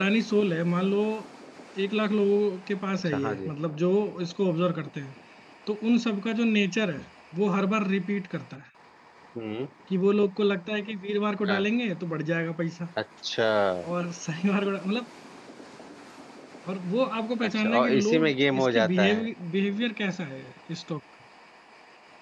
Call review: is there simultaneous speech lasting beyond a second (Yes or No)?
Yes